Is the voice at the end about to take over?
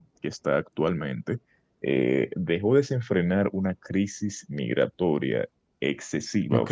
No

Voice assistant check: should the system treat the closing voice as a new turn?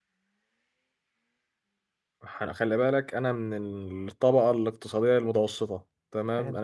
No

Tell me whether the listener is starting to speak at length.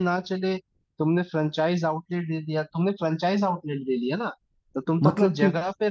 No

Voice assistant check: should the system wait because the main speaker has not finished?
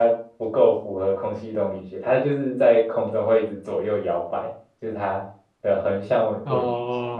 No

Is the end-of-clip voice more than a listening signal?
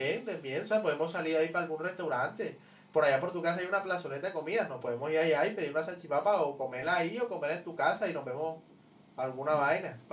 Yes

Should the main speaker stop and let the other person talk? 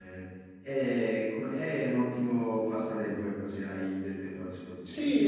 Yes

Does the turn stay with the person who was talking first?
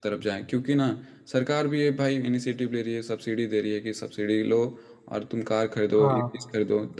Yes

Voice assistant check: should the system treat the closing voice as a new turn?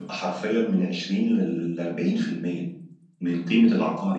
No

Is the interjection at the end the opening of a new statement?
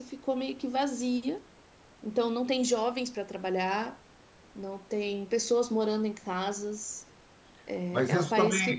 Yes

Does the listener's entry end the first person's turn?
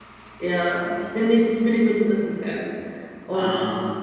No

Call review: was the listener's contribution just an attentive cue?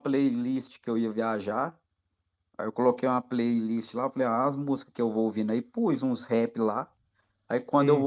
Yes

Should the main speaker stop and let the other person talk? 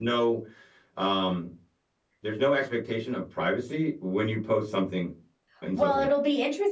Yes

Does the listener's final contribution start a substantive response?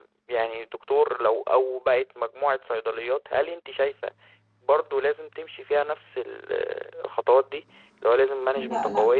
Yes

